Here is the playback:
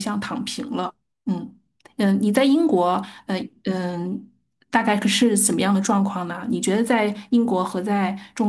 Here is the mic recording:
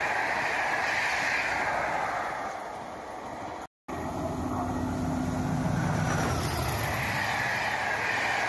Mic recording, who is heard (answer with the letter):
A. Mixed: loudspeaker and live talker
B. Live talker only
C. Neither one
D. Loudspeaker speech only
C